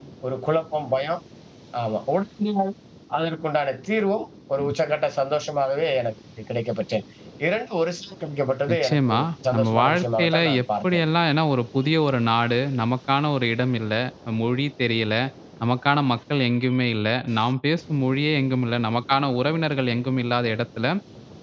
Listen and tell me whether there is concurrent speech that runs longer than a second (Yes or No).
Yes